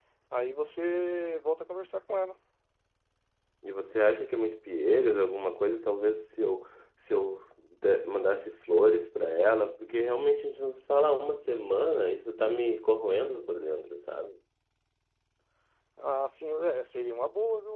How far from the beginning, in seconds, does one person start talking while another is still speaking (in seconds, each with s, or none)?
none